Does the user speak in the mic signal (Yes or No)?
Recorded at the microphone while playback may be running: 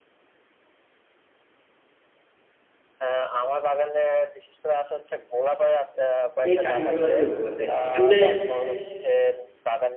Yes